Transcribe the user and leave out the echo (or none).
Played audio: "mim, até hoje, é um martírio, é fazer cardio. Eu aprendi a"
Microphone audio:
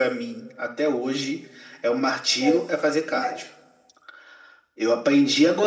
Que, eu- que me,